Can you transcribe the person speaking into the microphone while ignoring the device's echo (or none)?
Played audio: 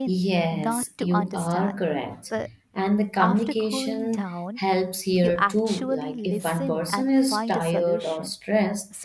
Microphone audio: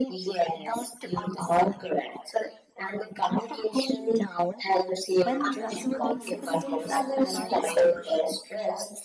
when responsibilities are balanced,